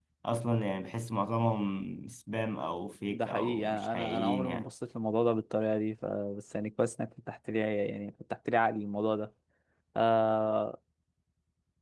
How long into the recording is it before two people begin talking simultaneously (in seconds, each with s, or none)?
3.1 s